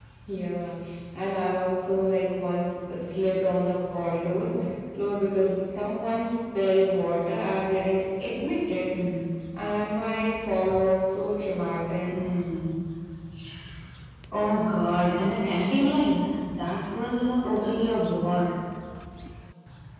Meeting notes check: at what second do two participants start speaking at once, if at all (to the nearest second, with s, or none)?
none